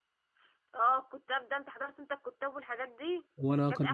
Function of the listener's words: listening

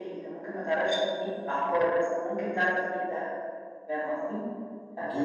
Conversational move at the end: listening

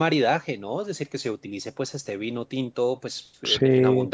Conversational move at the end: listening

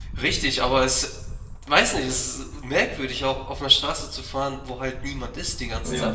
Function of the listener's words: taking over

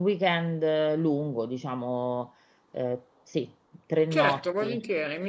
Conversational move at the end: taking over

